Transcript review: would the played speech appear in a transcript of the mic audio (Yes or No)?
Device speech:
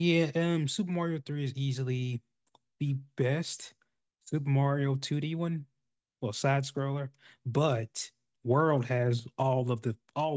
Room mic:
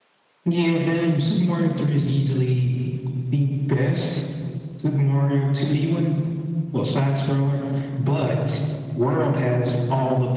Yes